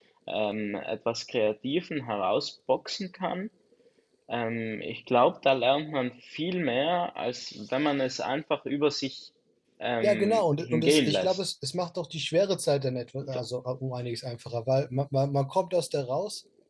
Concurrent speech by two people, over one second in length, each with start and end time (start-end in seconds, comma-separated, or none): 10.0-11.4